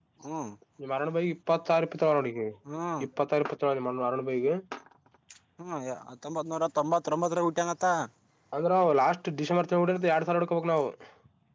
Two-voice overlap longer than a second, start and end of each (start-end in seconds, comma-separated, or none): none